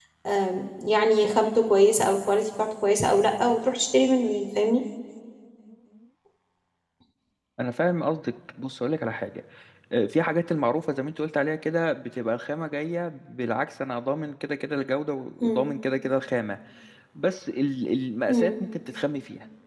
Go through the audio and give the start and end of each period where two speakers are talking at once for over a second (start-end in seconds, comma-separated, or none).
none